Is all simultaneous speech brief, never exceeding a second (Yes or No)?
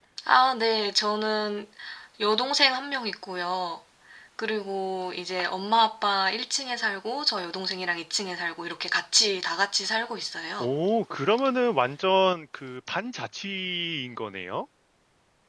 Yes